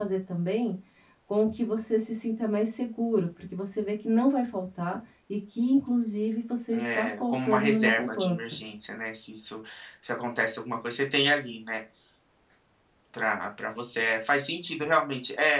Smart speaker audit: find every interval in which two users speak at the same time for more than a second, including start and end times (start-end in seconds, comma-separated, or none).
6.7-8.6